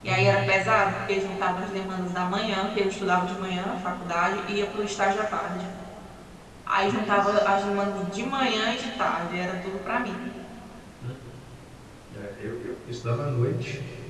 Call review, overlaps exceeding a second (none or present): none